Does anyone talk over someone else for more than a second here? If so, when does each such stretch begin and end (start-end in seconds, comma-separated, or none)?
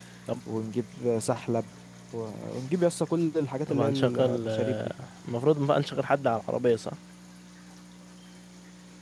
3.7-4.9